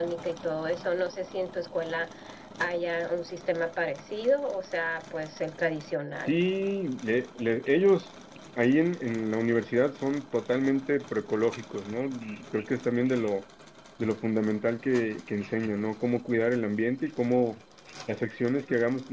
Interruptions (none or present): none